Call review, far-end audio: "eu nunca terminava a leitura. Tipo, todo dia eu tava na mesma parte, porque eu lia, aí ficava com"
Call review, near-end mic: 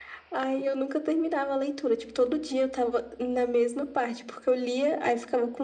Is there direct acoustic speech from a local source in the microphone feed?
No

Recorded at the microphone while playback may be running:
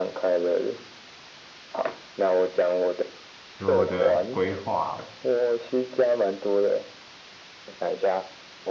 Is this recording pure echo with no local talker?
No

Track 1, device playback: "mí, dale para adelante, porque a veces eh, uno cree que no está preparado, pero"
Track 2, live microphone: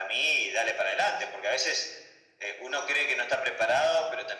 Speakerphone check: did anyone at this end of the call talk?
No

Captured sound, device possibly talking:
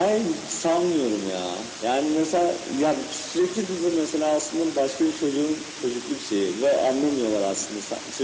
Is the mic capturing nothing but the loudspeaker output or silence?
Yes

